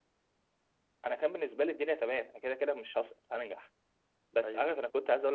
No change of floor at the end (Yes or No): Yes